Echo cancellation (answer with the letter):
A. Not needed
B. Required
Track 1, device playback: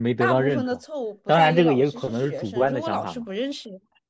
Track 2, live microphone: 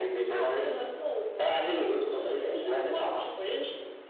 B